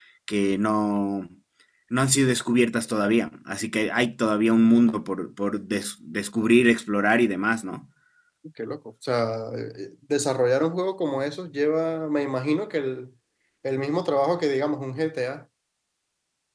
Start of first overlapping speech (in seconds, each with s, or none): none